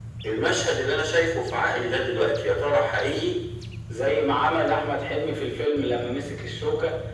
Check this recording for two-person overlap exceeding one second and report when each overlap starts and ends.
none

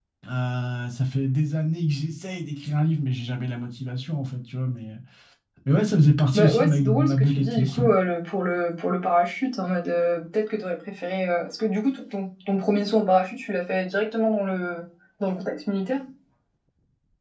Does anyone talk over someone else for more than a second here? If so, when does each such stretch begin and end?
6.3-7.9

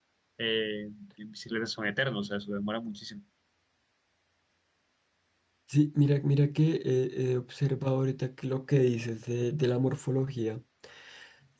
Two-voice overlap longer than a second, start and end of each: none

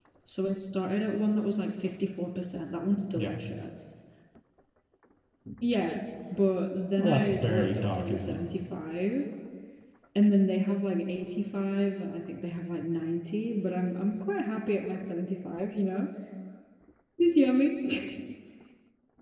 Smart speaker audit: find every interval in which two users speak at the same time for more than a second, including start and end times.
7.0-8.4

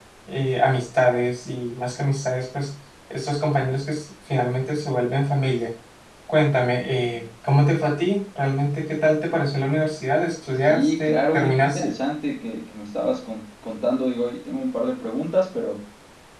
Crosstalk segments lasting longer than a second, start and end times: 10.7-11.9

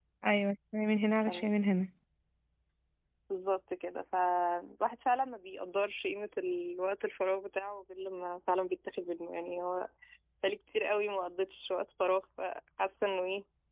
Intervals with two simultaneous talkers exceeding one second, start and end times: none

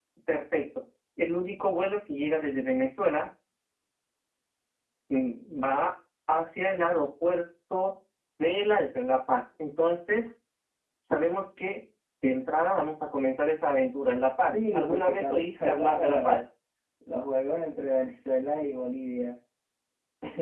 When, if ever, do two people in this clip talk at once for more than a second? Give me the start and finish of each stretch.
14.5-16.4

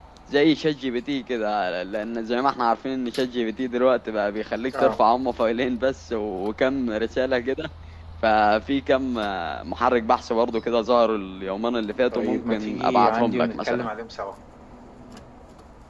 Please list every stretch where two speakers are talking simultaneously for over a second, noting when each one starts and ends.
12.1-13.9

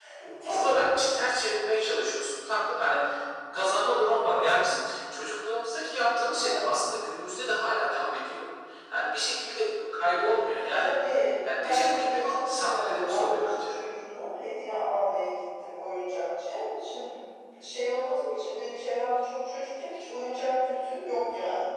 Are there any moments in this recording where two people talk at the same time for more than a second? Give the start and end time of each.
11.6-13.8

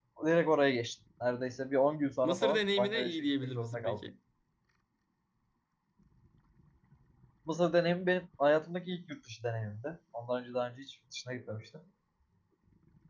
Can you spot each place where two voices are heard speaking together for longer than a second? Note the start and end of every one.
2.2-4.0

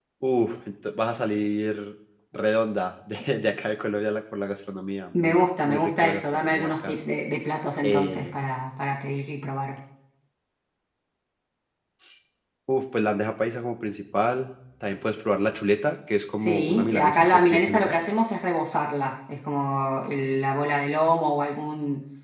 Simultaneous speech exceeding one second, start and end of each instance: 5.1-7.0, 16.4-18.0

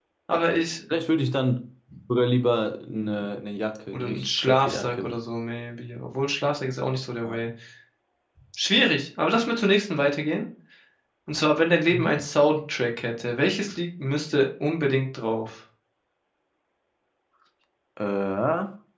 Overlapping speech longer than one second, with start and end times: 3.9-5.2

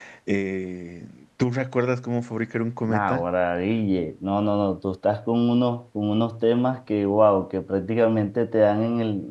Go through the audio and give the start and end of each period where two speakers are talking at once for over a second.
none

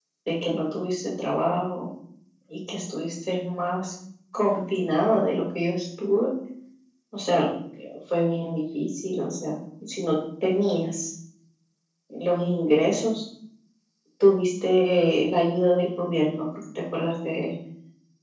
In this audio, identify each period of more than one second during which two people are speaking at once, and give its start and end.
none

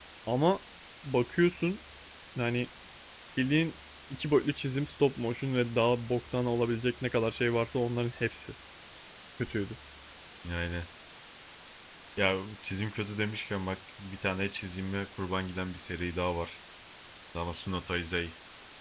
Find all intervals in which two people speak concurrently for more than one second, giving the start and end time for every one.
none

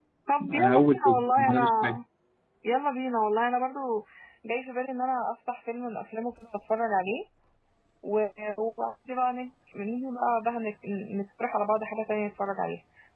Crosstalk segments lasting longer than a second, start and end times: 0.5-1.9

